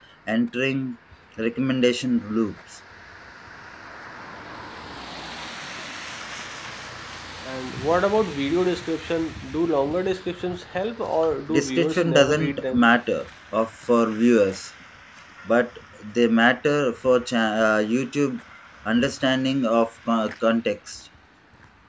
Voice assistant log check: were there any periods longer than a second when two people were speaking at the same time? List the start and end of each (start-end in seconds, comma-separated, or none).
11.5-12.8